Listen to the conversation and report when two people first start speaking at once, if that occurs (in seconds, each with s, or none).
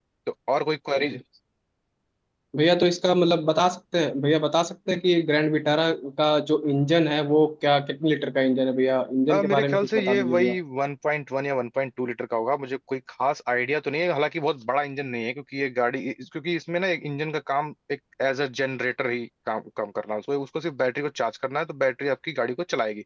9.3 s